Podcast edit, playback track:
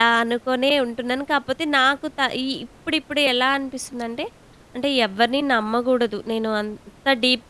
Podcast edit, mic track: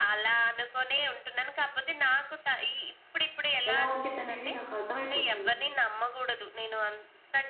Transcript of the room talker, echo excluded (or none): ఎలా ఉండిద్దనేది నాకు అర్థమైపోతుంది.